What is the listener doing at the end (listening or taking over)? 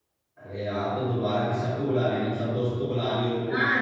taking over